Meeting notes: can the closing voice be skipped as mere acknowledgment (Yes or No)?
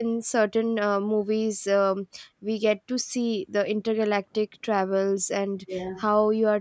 Yes